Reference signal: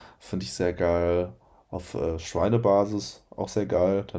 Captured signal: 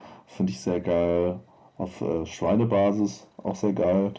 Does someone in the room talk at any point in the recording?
No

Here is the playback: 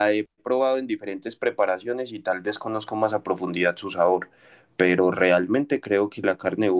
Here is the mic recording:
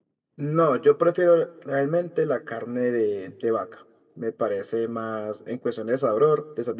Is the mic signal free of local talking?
No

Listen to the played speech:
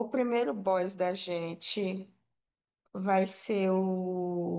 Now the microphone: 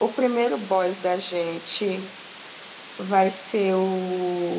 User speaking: No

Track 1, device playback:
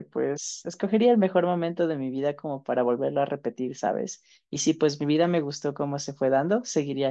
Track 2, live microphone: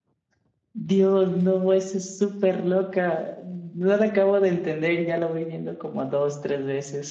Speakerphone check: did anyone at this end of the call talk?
Yes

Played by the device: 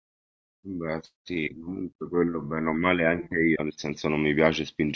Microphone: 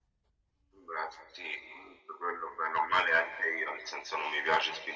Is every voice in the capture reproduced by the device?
Yes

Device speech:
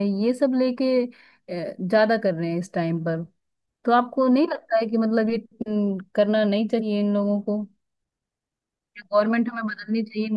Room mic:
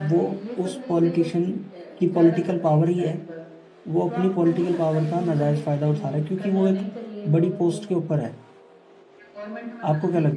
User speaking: Yes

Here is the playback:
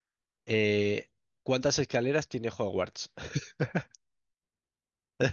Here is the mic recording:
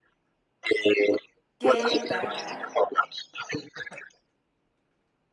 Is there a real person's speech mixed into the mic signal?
Yes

